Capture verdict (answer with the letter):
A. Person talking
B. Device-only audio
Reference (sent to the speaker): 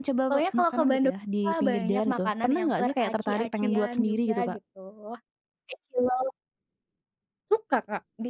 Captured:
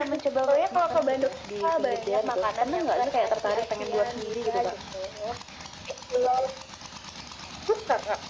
B